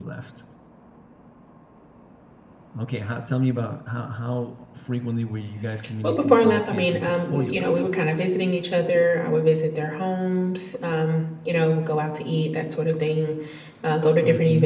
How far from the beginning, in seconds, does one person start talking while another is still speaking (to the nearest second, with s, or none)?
6 s